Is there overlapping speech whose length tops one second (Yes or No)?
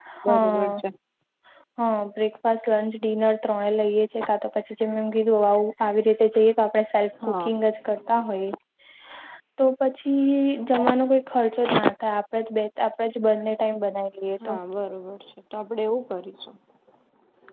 No